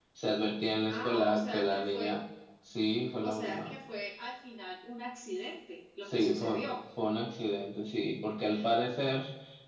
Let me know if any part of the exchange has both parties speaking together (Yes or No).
Yes